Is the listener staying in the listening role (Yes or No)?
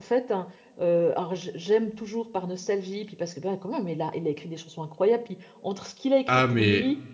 Yes